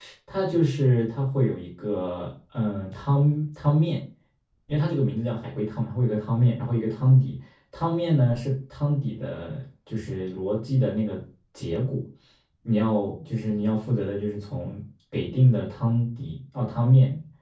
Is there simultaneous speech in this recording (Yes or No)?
No